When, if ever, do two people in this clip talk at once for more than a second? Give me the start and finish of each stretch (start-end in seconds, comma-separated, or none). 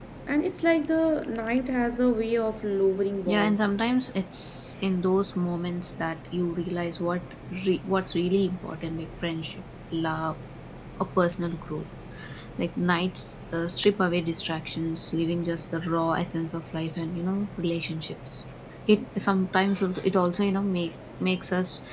none